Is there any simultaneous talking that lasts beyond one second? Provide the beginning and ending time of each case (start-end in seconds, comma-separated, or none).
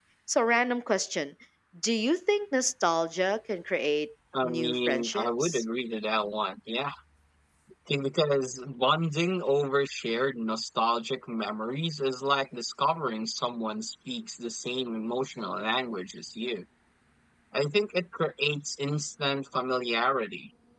4.4-5.6